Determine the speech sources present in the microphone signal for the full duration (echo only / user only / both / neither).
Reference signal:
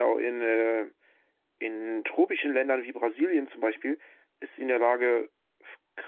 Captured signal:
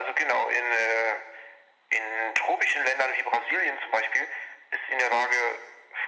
echo only